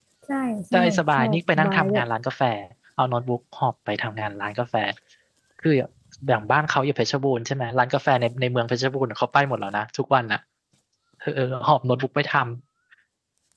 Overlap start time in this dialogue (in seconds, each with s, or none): 0.7 s